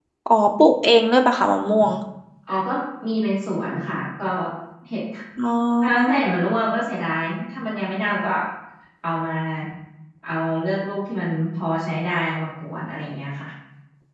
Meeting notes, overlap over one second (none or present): none